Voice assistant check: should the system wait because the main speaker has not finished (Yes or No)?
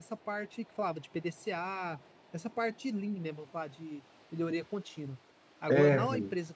Yes